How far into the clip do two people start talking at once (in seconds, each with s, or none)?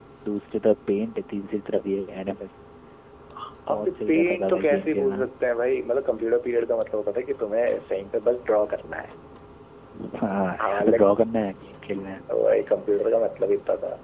3.7 s